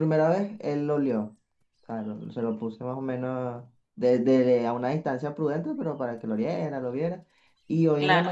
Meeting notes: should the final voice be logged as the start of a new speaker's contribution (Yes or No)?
No